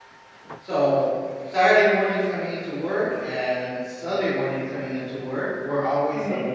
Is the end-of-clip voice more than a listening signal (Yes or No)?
No